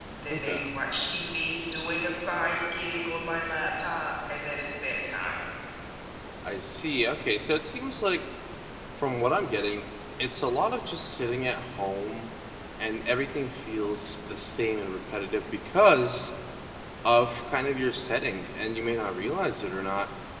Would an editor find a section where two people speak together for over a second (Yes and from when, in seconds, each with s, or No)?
No